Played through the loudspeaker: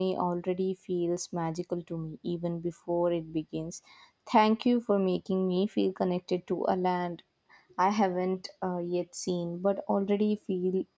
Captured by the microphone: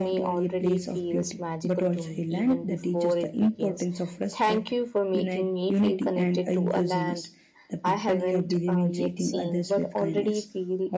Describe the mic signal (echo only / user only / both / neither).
both